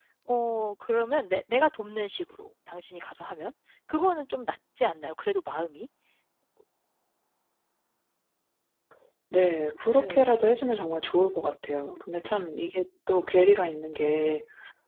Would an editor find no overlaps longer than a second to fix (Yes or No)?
Yes